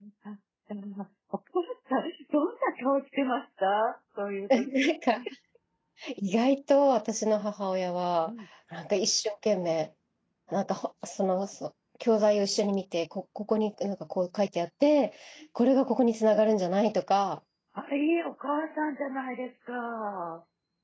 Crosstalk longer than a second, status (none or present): none